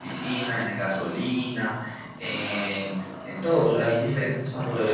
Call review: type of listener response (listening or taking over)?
listening